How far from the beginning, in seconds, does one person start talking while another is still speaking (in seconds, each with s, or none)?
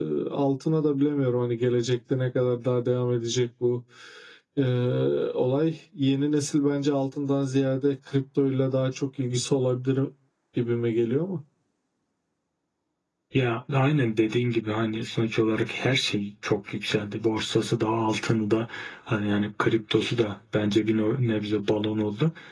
none